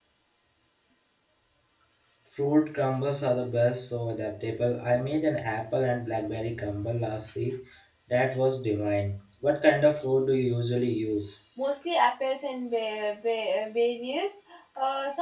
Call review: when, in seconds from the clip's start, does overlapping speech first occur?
none

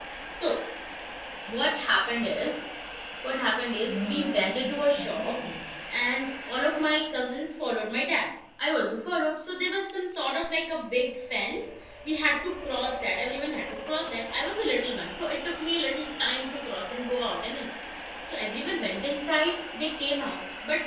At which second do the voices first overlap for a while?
3.9 s

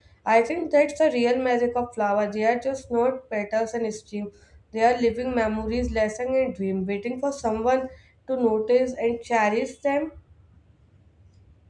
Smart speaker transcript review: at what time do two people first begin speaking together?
none

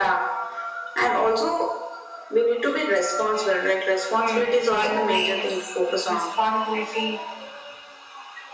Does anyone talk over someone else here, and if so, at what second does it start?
4.2 s

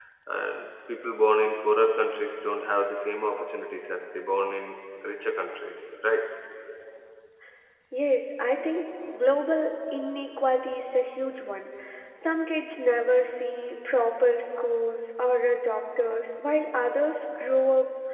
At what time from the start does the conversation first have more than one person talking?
none

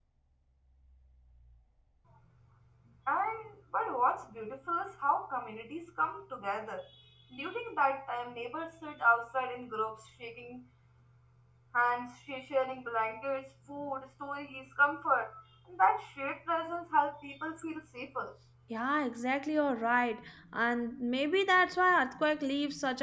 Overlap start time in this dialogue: none

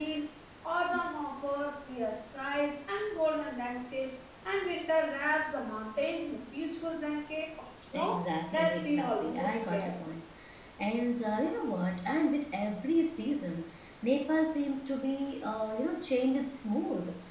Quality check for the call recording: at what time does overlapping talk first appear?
7.9 s

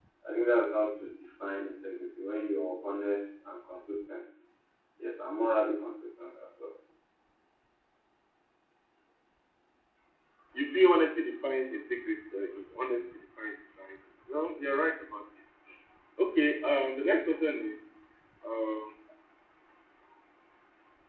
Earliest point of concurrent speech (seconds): none

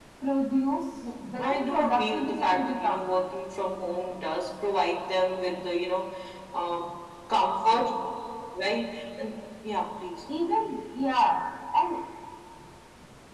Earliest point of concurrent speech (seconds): 1.4 s

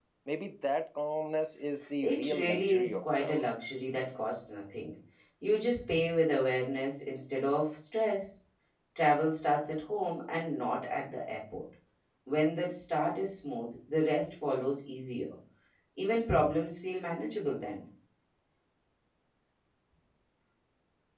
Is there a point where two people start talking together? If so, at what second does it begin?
2.0 s

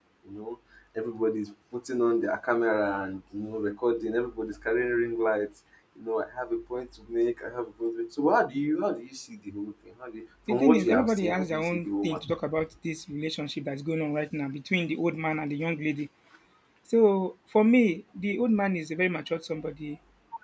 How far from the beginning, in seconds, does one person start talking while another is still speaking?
10.5 s

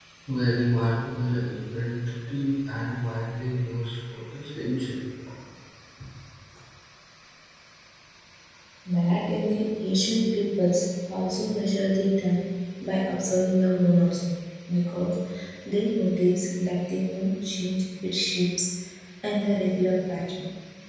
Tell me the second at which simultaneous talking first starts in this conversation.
none

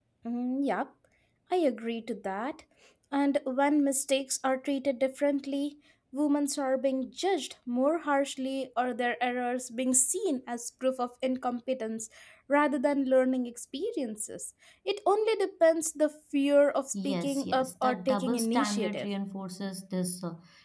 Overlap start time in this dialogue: 16.9 s

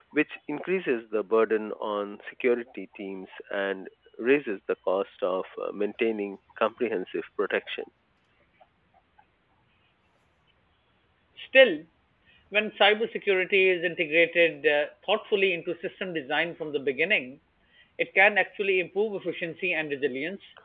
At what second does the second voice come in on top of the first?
none

